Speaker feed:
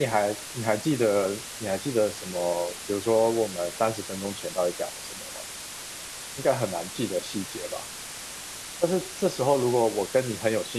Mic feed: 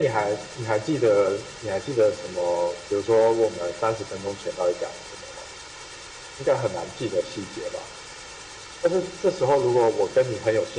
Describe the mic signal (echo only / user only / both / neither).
echo only